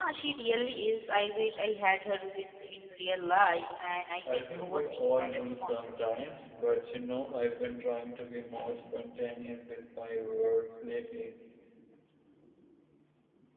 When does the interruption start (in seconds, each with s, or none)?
4.2 s